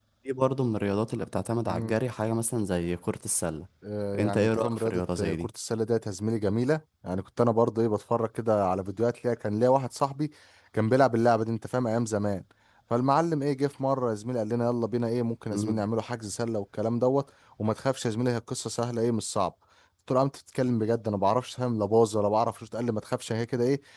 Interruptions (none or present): present